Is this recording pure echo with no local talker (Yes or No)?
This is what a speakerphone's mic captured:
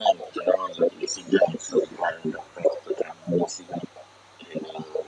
Yes